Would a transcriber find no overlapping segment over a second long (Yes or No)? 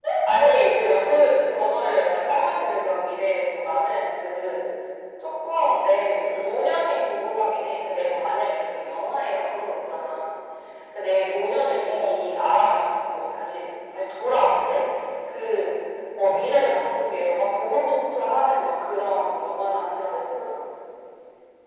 Yes